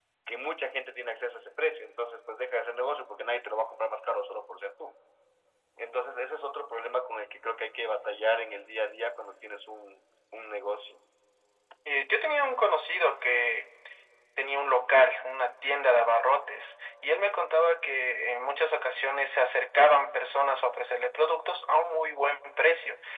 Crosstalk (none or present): none